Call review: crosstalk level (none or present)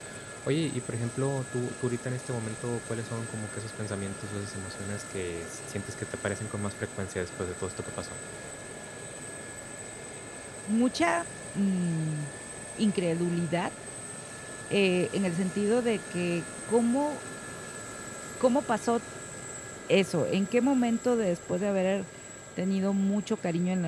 none